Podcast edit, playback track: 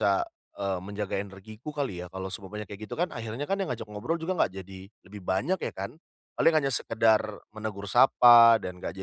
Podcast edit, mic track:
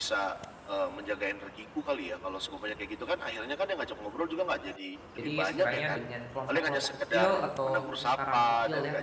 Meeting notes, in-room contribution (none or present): present